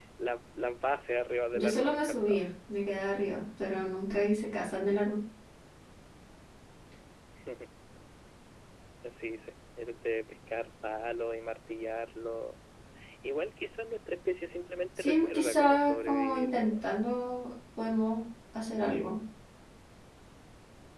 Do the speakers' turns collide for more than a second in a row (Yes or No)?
Yes